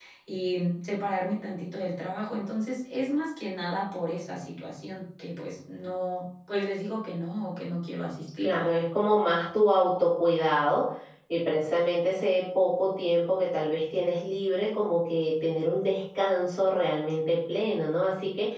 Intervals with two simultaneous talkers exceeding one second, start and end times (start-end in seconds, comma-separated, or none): none